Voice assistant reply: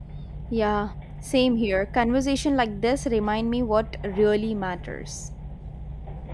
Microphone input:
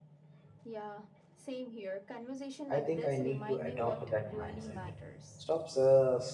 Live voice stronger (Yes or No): Yes